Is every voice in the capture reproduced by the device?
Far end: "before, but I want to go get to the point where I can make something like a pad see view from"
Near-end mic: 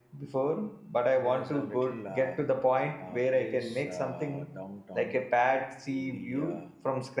No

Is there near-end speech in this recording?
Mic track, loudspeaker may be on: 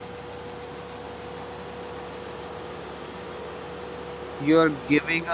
Yes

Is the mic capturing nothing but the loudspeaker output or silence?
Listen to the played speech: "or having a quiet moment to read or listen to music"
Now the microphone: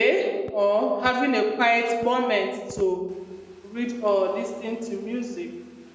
Yes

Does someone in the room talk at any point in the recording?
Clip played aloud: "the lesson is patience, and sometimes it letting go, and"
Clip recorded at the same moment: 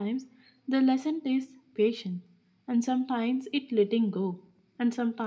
No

